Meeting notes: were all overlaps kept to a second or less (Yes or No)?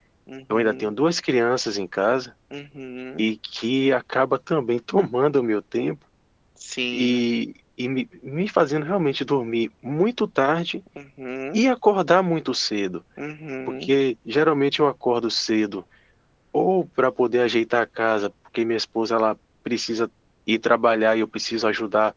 Yes